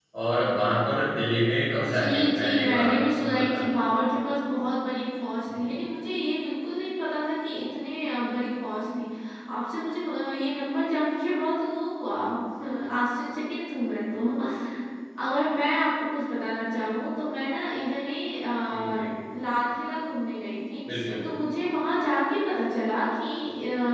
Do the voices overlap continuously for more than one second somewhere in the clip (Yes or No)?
Yes